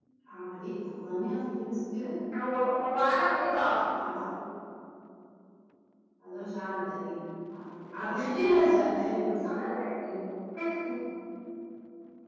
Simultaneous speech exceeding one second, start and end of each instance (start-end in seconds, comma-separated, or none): none